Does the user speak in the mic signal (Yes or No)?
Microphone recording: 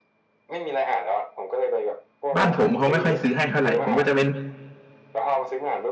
Yes